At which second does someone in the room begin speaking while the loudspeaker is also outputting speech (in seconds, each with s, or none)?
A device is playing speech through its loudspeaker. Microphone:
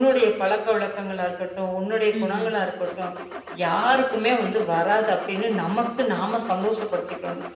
2.2 s